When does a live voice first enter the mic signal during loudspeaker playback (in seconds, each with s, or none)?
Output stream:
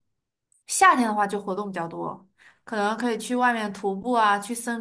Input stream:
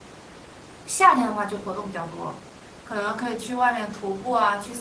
none